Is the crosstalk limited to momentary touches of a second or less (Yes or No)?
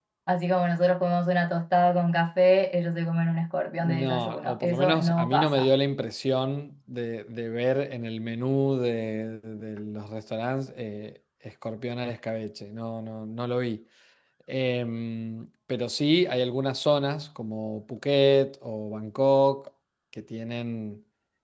No